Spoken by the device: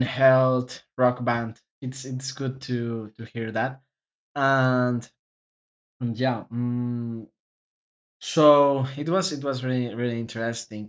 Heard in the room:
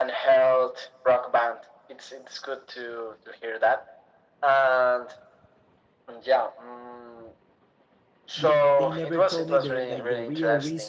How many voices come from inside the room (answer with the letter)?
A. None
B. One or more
B